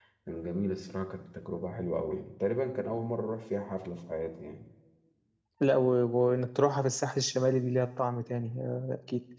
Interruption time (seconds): none

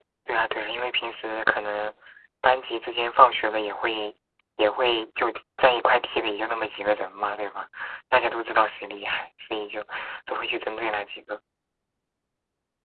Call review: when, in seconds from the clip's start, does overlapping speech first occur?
none

